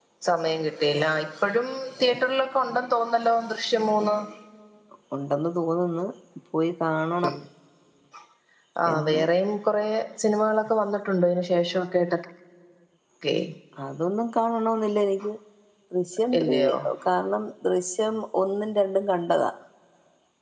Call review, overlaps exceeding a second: none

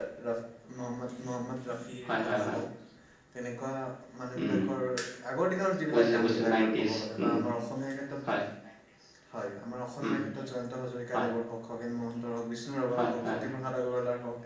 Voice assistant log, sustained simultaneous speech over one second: present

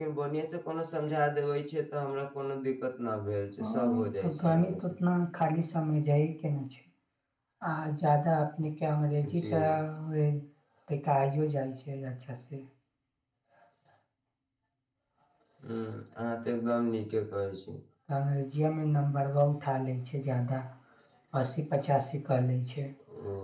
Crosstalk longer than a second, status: present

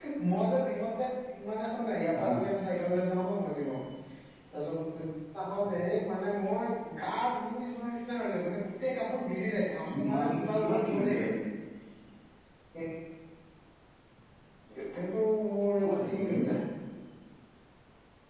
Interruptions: present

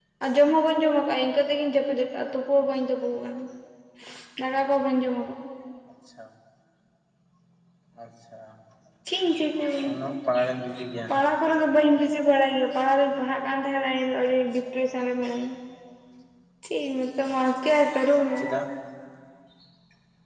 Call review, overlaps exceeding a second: none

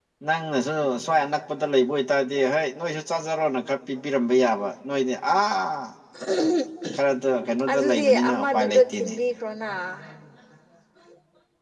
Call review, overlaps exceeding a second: present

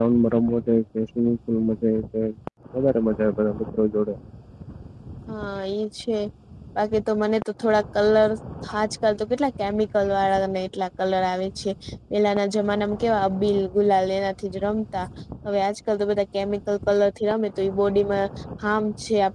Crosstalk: none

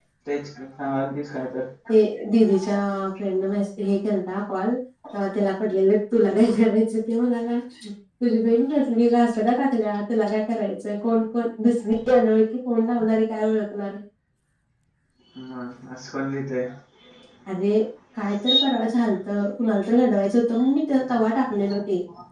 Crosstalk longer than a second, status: none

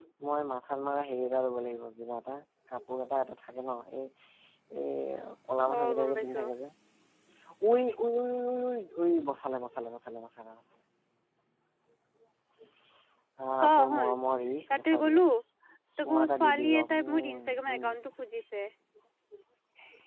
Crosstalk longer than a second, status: present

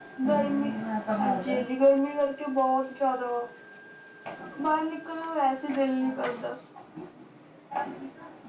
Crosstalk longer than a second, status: none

